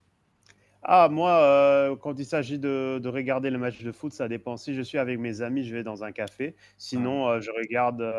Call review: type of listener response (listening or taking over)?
listening